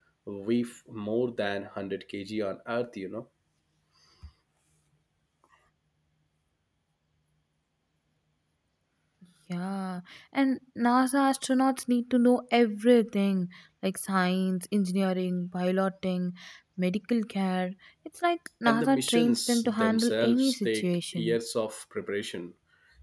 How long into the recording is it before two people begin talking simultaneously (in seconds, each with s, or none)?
18.6 s